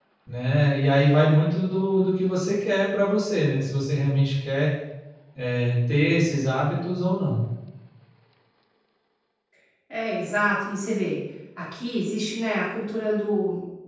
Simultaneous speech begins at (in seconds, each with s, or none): none